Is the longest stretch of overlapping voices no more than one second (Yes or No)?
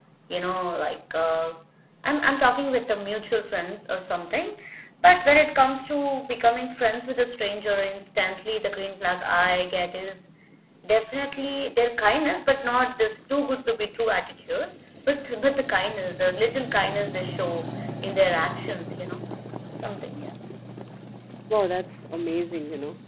Yes